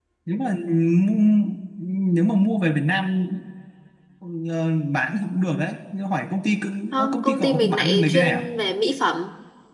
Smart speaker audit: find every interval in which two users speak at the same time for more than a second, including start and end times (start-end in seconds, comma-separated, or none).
6.9-8.4